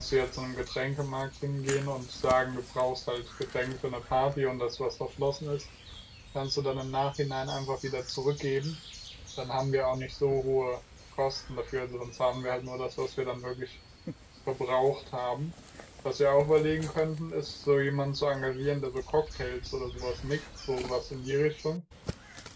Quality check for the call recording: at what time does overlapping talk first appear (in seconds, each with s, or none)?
none